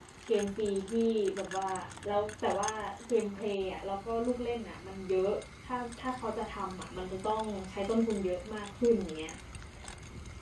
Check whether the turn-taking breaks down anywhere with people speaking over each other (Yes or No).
No